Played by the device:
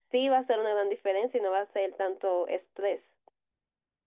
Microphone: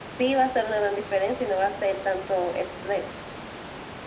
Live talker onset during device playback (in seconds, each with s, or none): none